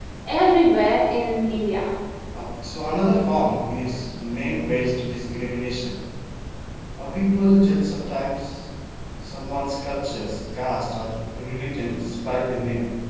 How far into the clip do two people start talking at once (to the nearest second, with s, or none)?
none